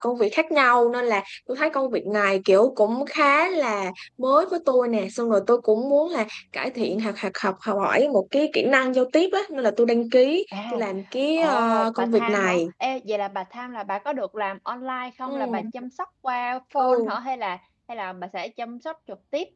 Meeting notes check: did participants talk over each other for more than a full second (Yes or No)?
Yes